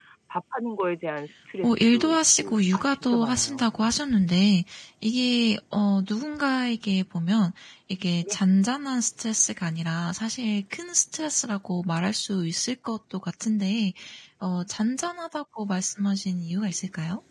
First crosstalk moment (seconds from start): 1.6 s

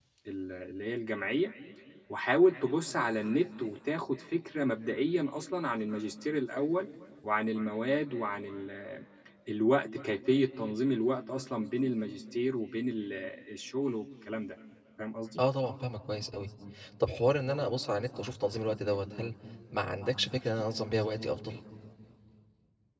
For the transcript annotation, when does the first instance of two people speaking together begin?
none

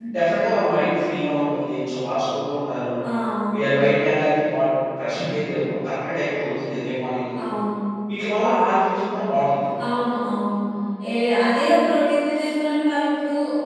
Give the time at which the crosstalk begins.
none

